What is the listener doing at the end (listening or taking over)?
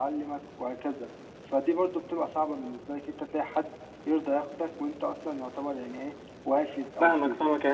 taking over